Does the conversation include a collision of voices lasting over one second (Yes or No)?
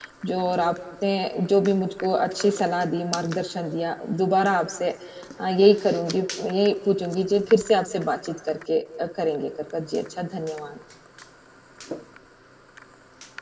No